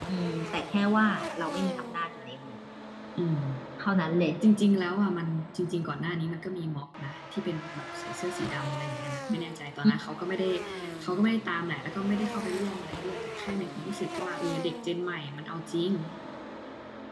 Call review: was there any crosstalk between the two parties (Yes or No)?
No